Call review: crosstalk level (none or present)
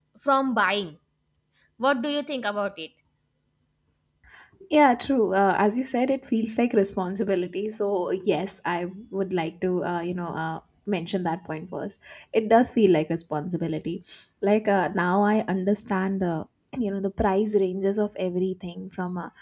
none